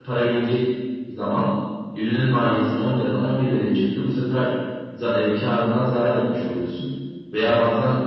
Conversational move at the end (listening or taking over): listening